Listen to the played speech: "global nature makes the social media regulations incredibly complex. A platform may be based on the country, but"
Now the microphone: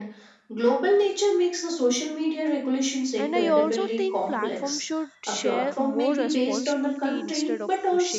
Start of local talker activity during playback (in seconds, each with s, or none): 3.2 s